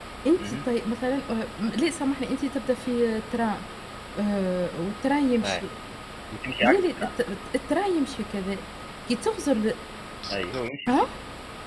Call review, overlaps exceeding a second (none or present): none